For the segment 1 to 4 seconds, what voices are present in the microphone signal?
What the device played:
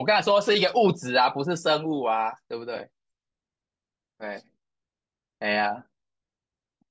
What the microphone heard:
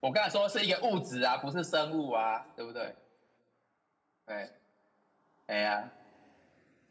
echo only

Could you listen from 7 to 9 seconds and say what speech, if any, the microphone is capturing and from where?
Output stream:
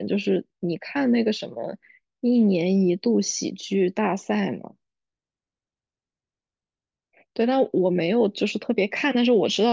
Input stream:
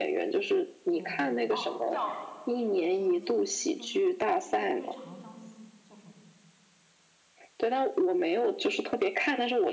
echo only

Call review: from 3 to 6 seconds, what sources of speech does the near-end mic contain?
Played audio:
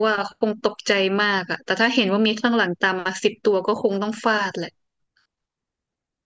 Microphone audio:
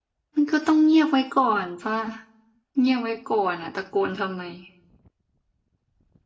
user only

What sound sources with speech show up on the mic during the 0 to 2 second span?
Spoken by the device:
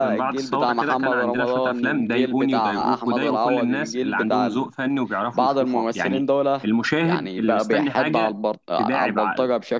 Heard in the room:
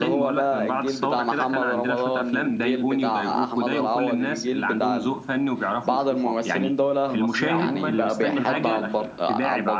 echo only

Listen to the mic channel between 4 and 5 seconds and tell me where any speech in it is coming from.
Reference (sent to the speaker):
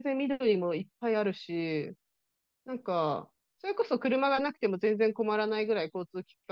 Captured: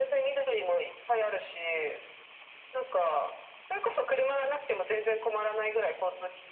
echo only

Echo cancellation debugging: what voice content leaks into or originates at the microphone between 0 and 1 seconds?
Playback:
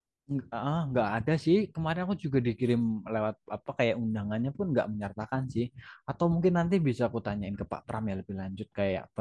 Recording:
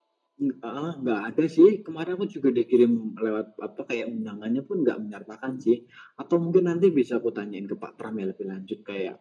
echo only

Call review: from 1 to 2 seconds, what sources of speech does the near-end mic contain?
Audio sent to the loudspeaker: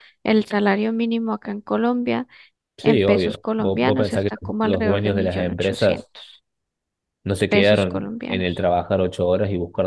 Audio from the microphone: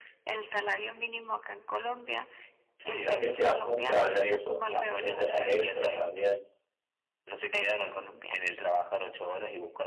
echo only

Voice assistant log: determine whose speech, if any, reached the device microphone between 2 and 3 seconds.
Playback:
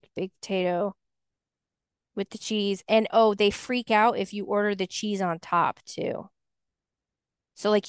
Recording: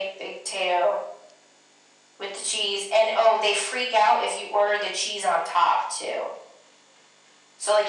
echo only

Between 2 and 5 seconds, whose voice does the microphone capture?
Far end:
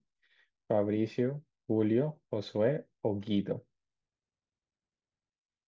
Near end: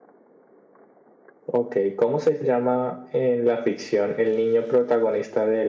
user only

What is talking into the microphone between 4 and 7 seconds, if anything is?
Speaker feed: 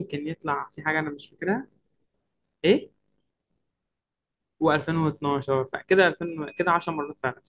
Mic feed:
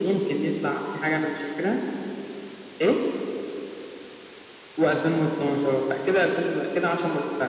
echo only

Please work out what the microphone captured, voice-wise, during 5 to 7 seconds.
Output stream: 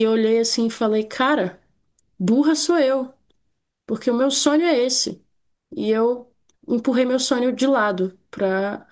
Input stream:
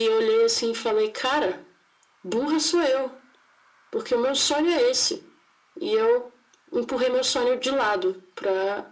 echo only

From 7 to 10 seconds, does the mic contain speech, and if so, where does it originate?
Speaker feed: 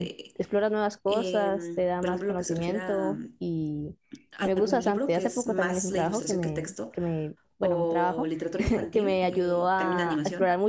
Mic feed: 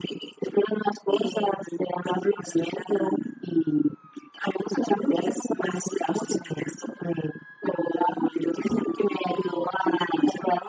echo only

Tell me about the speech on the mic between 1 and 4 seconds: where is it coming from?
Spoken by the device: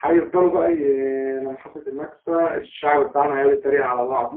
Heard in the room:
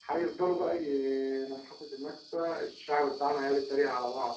echo only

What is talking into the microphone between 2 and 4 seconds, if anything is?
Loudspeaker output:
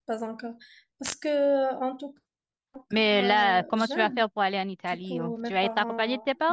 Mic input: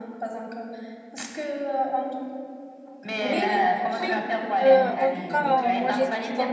both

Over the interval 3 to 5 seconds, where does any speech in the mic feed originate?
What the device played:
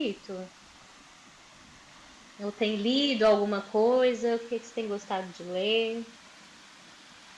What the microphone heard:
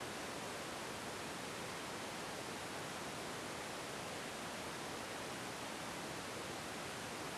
neither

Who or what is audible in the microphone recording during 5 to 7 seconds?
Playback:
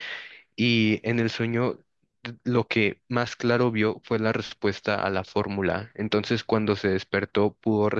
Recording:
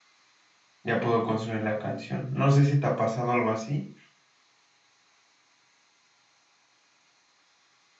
neither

